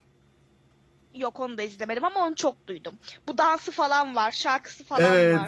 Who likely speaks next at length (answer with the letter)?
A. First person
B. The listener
B